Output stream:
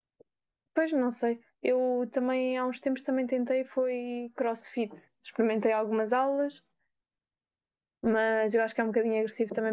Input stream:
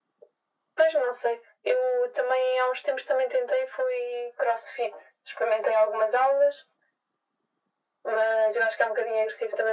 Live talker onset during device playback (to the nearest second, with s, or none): none